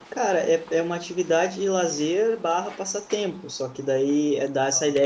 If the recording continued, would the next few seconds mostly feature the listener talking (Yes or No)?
No